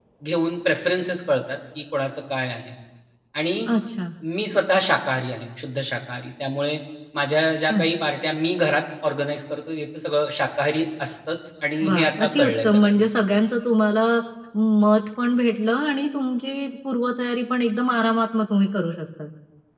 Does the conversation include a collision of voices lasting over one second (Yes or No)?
Yes